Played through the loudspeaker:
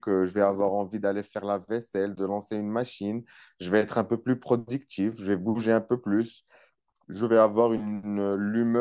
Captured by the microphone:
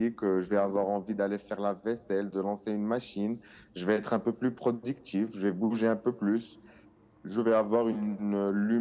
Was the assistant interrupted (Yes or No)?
No